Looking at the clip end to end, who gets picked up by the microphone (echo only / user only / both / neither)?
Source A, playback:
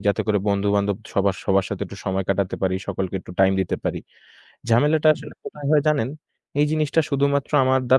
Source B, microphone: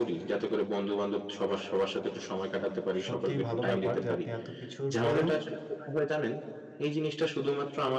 both